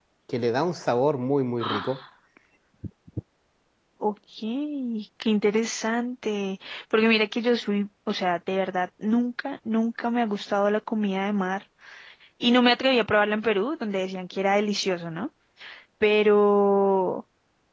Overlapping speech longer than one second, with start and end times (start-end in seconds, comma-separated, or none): none